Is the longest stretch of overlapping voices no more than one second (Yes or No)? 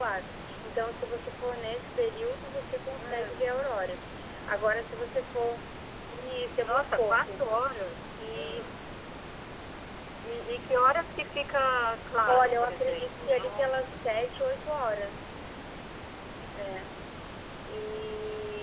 No